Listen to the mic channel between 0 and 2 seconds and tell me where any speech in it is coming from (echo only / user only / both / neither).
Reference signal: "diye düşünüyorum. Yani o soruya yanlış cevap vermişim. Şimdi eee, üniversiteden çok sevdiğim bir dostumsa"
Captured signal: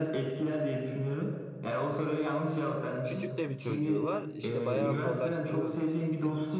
echo only